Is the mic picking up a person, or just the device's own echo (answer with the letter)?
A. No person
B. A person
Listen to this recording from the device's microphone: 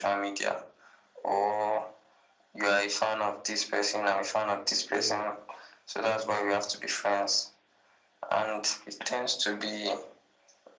B